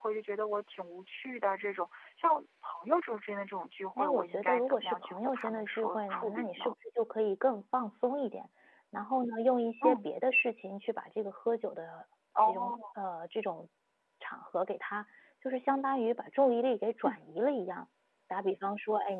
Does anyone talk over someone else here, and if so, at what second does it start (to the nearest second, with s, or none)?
4 s